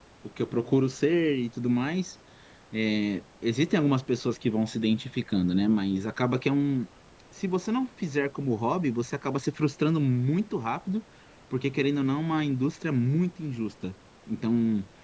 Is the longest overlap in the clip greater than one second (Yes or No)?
No